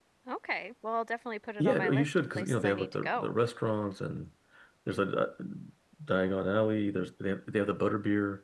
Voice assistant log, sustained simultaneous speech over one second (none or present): present